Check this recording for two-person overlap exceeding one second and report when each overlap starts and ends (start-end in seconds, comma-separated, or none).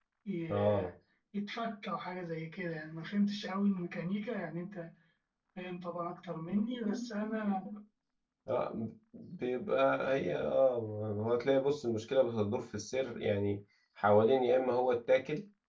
none